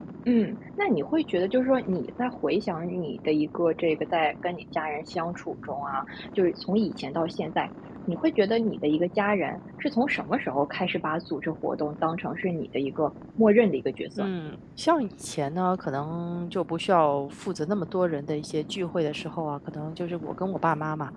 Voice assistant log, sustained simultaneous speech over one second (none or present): none